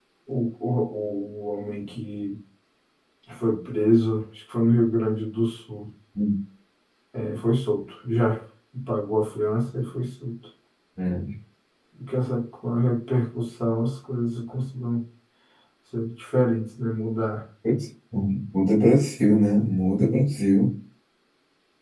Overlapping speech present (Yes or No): No